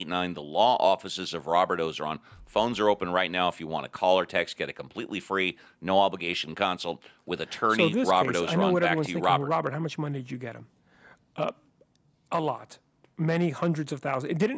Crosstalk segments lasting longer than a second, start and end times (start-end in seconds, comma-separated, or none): 7.7-9.5